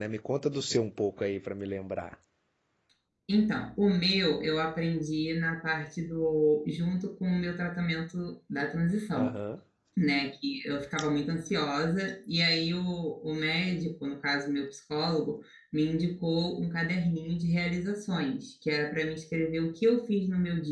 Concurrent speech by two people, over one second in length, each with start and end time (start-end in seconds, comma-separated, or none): none